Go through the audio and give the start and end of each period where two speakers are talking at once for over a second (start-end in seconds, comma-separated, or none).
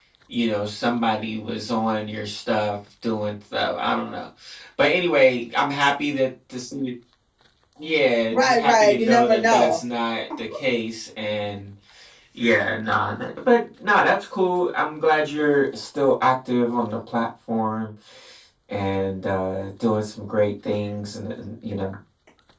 8.3-9.8